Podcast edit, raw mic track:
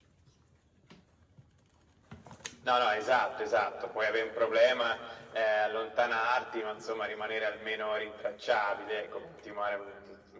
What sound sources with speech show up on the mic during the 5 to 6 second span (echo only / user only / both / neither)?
echo only